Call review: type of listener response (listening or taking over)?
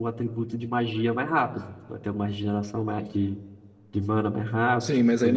taking over